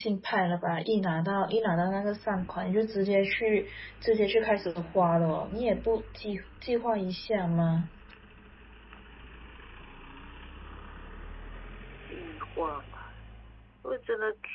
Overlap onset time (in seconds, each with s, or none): none